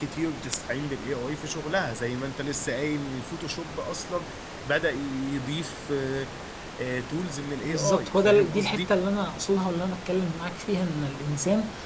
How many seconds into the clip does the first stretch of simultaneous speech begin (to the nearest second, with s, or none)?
8 s